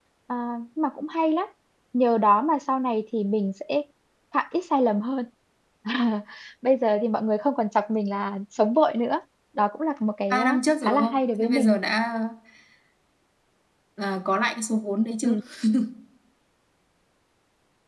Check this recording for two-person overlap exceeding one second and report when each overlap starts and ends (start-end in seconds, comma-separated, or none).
10.3-11.7